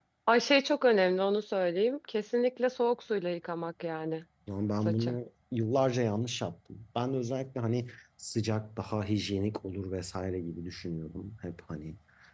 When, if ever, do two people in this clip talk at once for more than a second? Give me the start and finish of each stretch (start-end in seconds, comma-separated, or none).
none